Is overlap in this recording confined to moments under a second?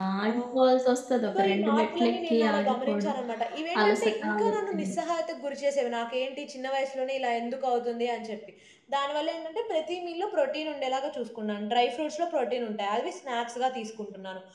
No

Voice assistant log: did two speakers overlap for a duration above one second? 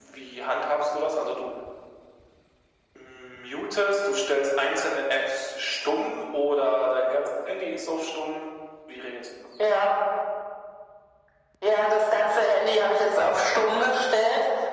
No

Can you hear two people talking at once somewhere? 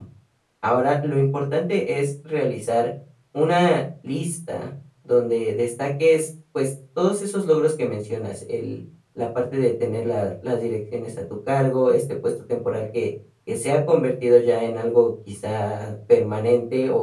No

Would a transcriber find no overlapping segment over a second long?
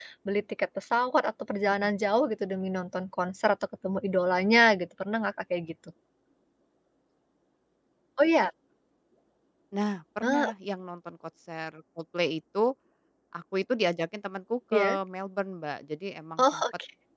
Yes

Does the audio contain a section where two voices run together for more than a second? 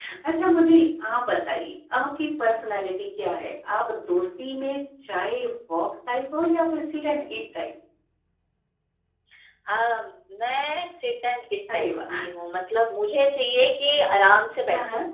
No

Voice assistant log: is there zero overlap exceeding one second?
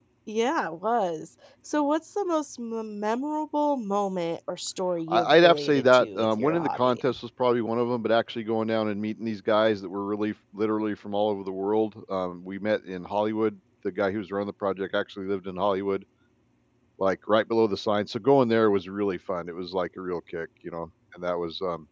No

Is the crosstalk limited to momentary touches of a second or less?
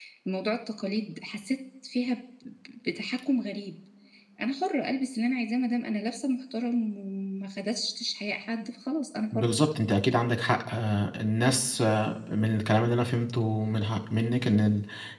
Yes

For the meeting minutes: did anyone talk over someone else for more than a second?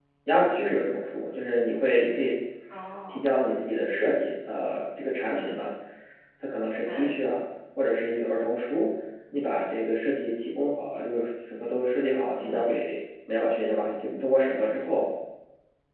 No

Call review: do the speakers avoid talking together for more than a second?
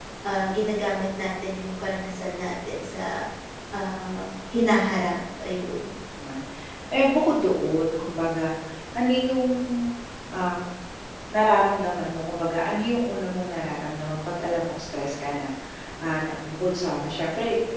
Yes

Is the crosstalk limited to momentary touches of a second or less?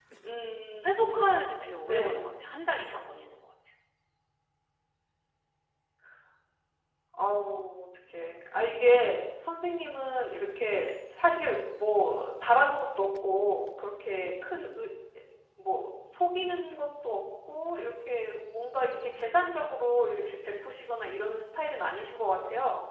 Yes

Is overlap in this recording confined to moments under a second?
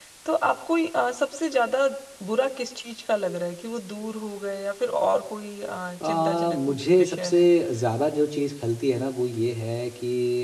No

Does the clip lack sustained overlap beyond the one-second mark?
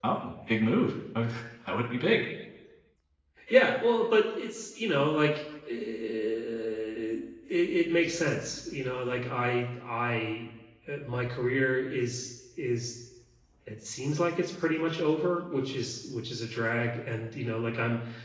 Yes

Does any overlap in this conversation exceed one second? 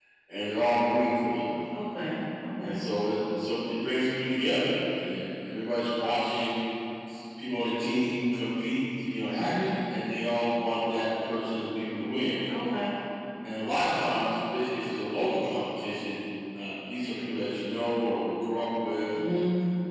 No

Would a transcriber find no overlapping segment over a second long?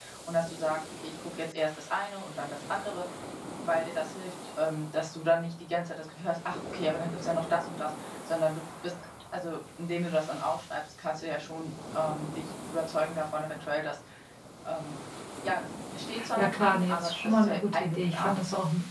No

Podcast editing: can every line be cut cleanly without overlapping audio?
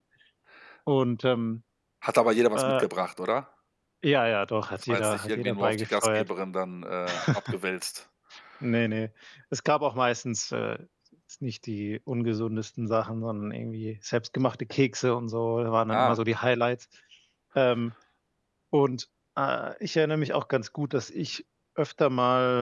No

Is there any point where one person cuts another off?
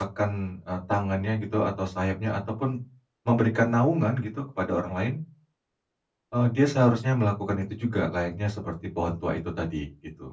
No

